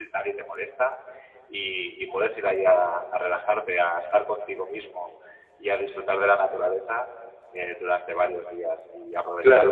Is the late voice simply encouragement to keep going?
No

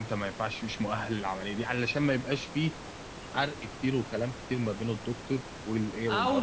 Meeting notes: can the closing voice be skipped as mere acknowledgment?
No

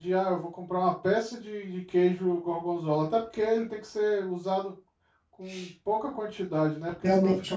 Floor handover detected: Yes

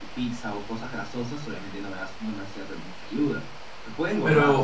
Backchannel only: No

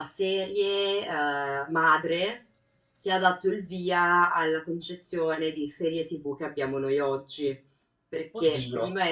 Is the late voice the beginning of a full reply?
No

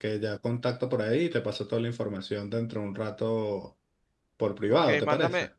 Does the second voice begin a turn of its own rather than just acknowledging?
Yes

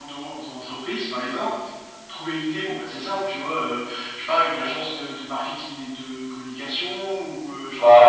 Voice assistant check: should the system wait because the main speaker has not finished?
No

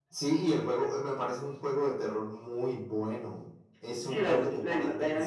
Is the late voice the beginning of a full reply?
Yes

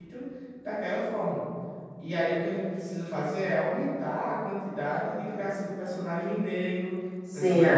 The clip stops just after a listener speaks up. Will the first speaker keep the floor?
No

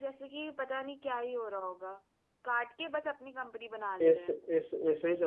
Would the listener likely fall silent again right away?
No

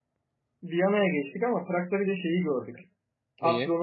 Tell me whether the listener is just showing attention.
Yes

